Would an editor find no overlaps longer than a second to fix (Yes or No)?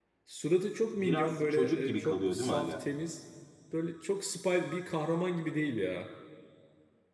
No